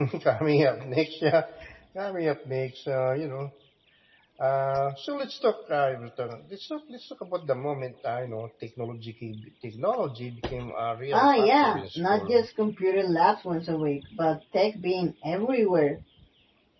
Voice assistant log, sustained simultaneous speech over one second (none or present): present